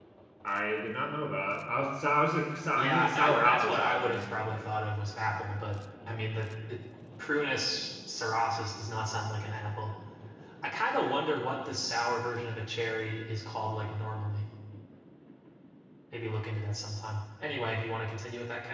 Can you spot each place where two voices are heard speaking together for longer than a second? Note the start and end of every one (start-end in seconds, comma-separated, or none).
2.8-4.7